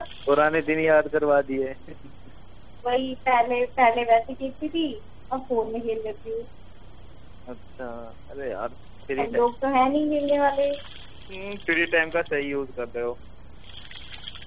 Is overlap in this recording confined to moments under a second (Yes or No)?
Yes